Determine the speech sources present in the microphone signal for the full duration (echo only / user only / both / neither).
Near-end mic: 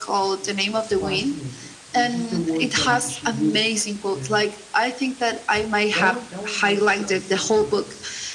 both